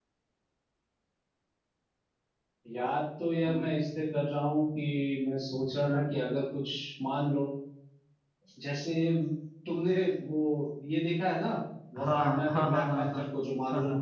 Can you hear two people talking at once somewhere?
Yes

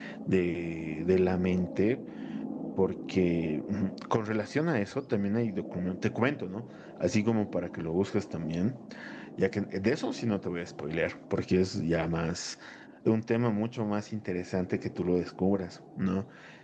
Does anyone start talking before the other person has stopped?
No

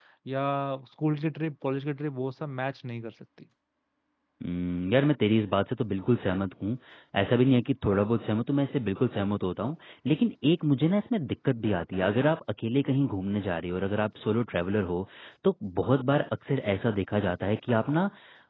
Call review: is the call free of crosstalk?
Yes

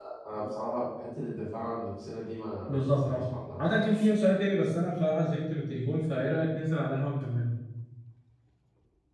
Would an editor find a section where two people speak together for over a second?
No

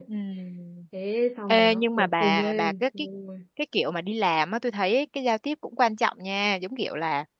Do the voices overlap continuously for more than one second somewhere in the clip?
Yes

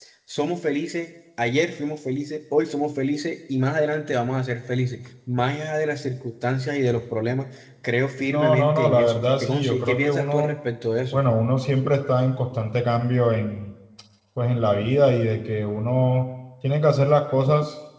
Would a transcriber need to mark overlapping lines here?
Yes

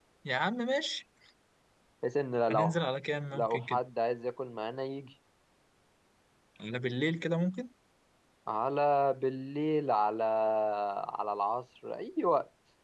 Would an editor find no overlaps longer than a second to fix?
Yes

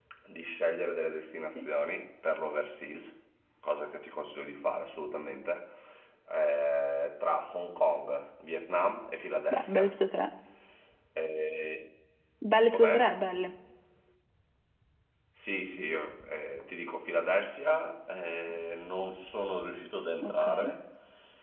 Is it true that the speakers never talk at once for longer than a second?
Yes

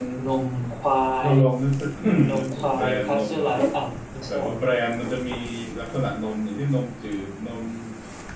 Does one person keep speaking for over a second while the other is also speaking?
Yes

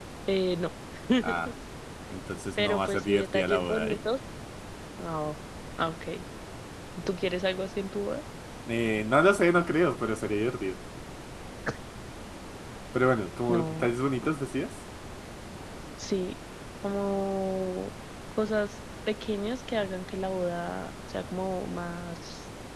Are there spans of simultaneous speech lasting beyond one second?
Yes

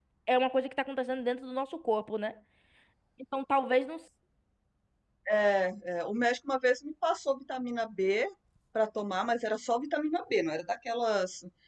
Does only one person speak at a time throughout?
Yes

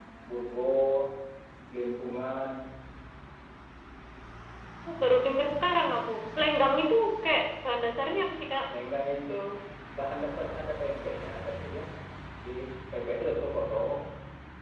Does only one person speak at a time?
Yes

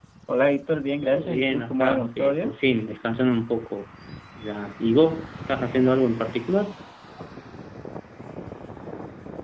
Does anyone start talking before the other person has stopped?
Yes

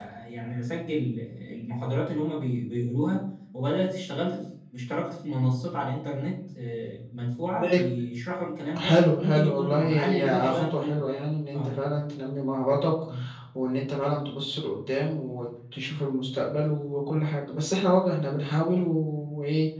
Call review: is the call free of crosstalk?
No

